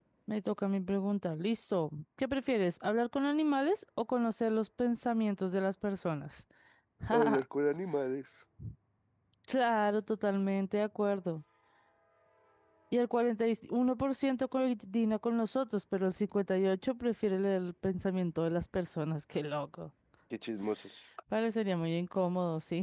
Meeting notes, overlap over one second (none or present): none